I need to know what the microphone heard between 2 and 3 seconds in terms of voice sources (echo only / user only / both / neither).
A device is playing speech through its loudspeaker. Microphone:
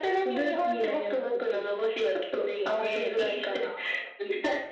echo only